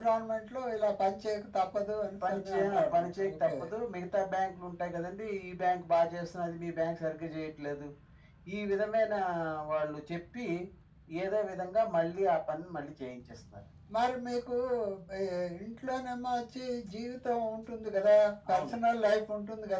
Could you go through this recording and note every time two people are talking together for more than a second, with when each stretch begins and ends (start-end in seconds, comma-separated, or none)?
2.3-3.5